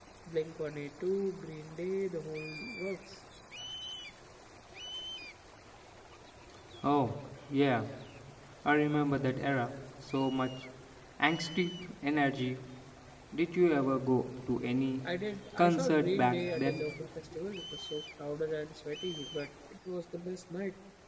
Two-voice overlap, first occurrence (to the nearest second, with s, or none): 16 s